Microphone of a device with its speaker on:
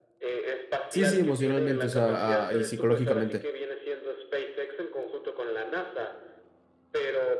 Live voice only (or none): Sí, sí, emocionalmente, o sea, ah, y psicológicamente.